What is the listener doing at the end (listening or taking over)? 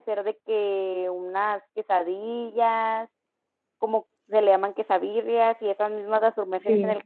listening